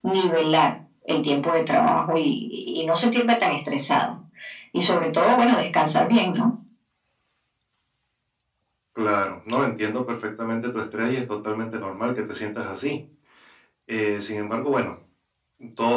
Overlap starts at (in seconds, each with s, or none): none